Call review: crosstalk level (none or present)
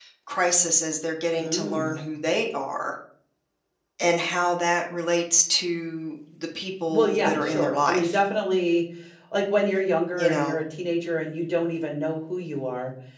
present